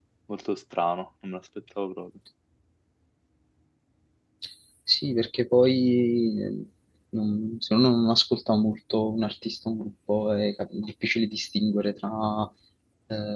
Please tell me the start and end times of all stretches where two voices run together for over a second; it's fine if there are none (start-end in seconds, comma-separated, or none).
none